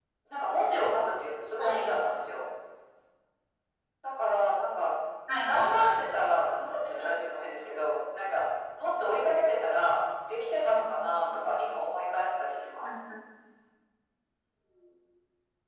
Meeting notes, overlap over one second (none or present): none